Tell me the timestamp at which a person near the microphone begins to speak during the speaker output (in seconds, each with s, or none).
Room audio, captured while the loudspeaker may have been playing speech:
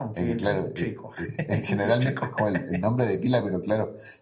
none